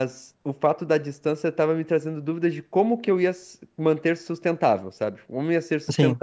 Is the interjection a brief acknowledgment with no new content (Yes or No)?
Yes